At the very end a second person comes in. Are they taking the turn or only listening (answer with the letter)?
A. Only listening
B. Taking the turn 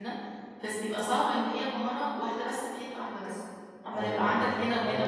B